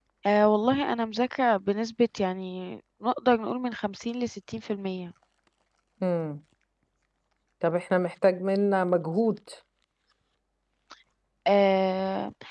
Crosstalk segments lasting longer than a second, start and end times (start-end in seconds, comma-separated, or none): none